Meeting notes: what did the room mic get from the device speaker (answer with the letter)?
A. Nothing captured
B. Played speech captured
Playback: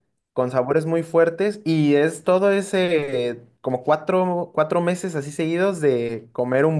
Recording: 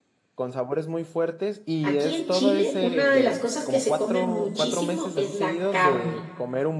B